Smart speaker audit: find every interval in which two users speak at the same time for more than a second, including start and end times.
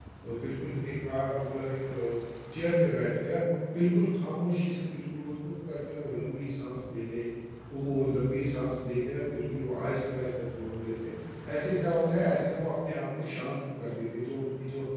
none

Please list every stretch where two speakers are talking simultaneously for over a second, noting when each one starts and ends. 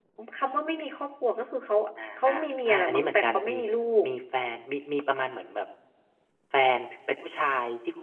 2.3-3.6

